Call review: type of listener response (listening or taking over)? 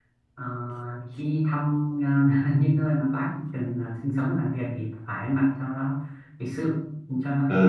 taking over